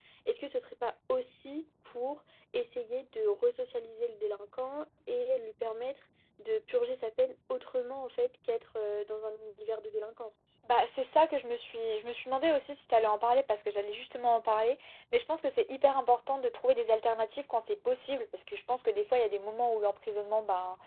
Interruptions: none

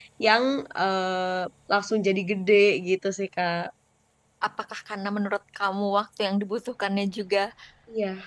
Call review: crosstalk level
none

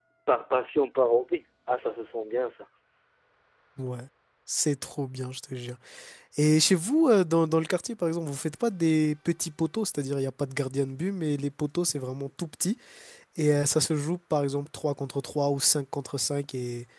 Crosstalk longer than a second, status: none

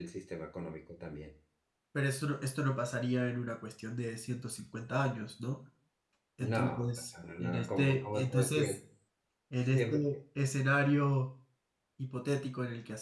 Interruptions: present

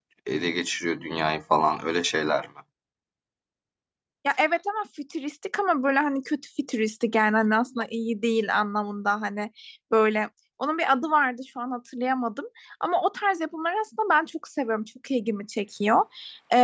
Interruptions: none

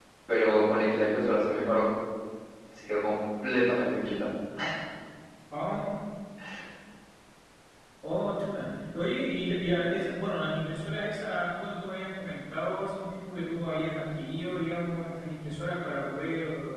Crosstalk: none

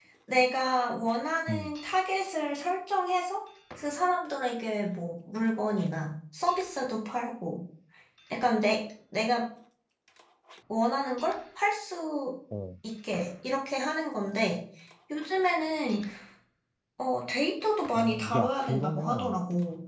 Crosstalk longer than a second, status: present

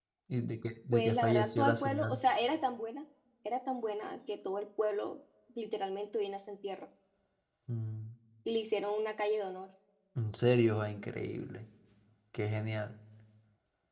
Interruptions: present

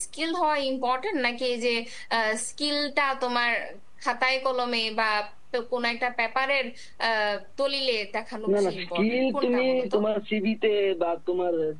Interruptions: present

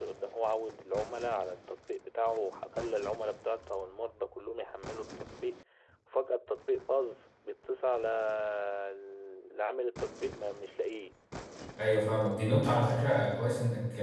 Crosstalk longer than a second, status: none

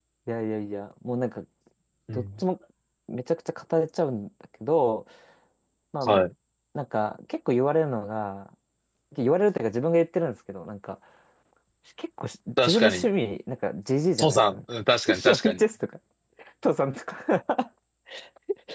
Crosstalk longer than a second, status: present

